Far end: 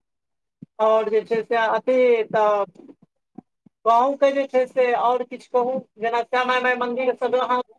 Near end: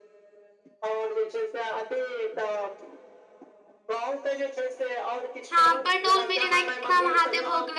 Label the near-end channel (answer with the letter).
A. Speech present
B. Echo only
A